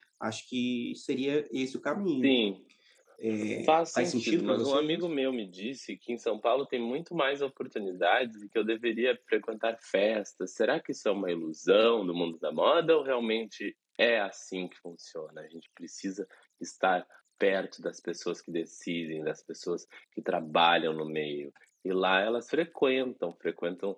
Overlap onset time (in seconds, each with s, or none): 3.7 s